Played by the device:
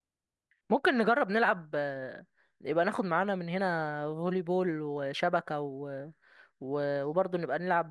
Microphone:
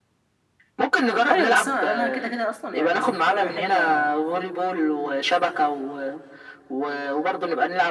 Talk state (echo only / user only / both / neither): both